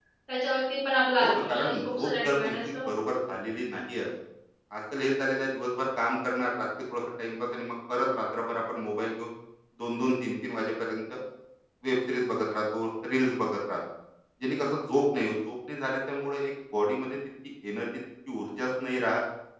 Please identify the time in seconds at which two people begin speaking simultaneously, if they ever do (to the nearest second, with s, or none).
1 s